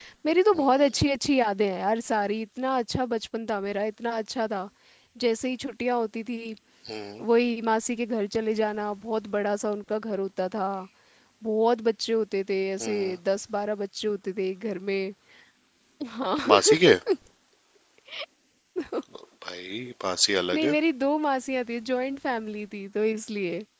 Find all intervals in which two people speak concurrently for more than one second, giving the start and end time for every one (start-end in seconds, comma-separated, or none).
none